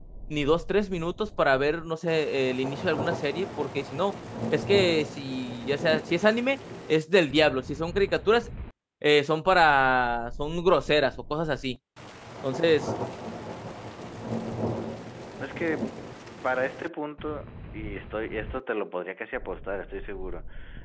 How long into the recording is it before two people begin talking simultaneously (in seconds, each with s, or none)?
none